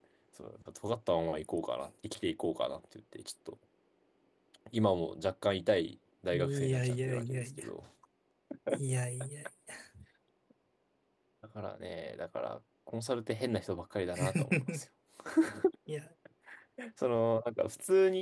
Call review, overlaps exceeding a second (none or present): present